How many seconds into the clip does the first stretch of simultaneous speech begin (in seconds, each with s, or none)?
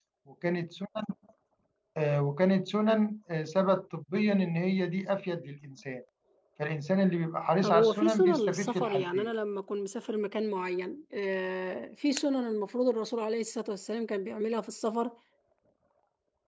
7.6 s